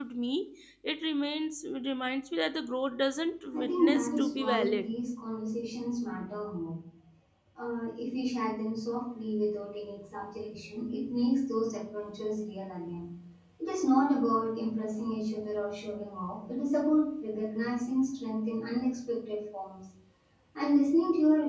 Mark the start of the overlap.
4 s

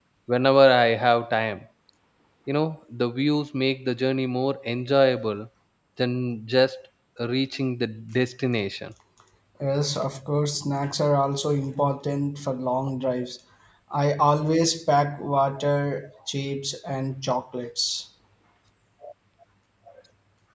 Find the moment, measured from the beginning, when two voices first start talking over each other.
none

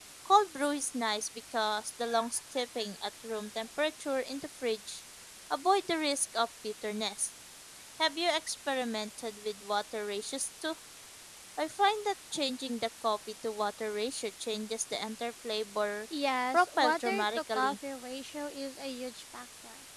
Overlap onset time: 17 s

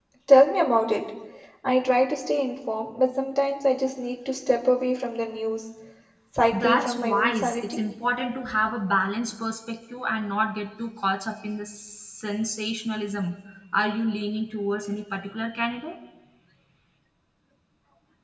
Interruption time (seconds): 7 s

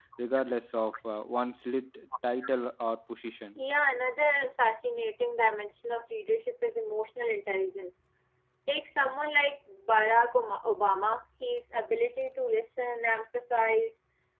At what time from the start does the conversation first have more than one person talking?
none

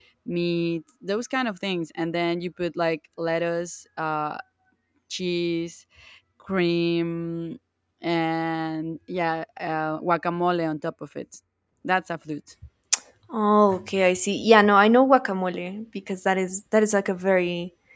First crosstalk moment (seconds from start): none

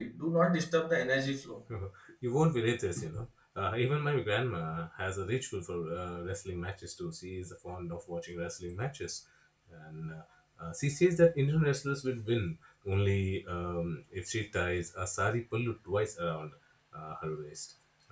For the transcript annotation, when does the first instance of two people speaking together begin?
none

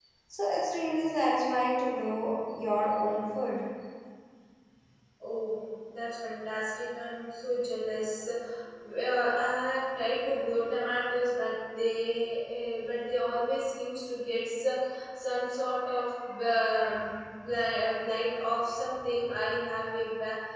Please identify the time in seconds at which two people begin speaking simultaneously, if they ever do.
none

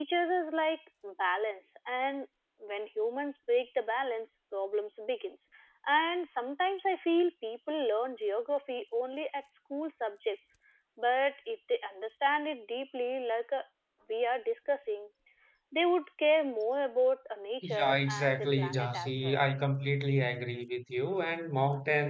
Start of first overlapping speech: 18 s

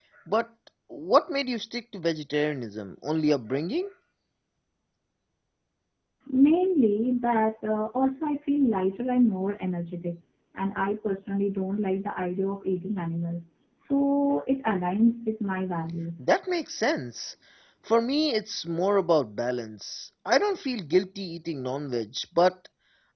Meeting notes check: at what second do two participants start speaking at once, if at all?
none

